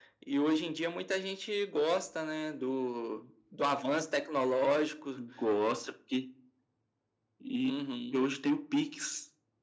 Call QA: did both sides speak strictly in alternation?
Yes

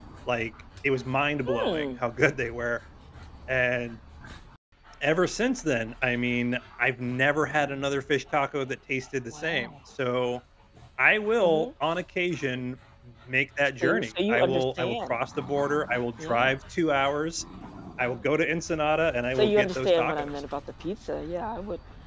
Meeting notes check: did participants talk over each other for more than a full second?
Yes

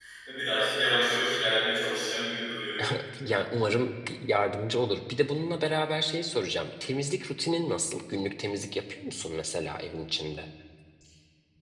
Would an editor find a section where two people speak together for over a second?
No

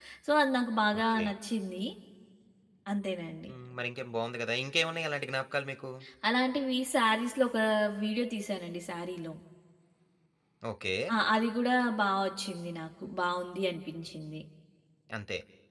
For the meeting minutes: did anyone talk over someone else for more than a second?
No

